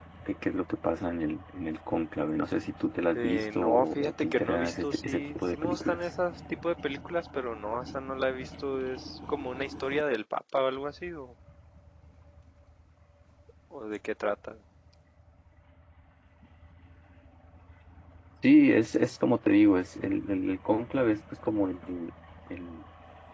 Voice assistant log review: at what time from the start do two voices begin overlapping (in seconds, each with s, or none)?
3.1 s